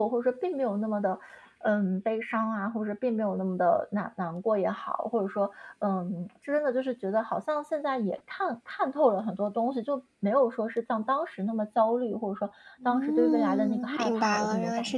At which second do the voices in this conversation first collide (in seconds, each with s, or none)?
12.8 s